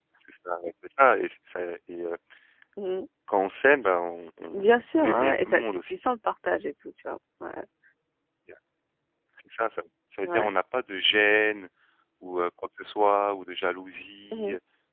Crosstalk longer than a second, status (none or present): present